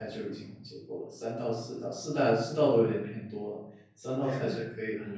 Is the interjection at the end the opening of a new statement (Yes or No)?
No